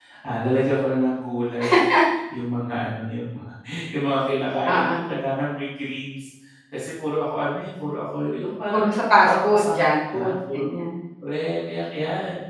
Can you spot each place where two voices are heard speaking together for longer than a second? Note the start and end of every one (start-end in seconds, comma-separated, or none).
9.2-10.7